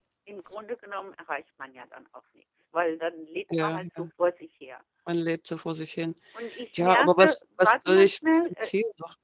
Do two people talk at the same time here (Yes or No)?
Yes